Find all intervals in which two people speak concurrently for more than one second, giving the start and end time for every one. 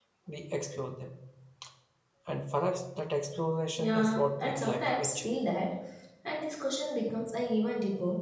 3.8-5.3

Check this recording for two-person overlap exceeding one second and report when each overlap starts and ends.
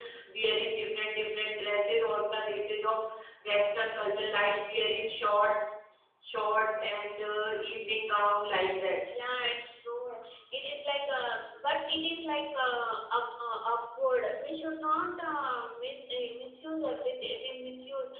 none

